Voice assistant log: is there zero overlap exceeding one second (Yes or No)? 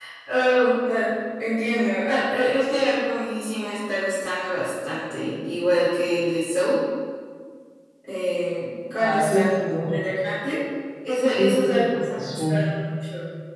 No